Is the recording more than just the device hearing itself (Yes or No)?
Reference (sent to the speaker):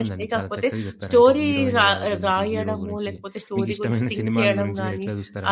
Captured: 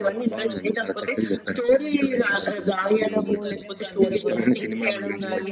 Yes